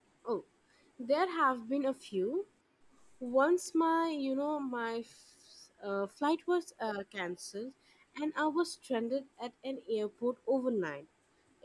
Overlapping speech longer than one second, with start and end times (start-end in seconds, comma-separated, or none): none